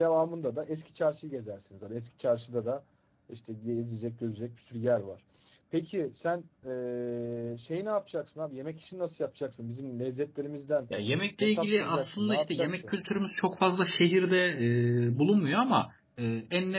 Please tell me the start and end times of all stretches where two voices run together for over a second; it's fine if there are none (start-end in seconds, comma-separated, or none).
11.4-12.9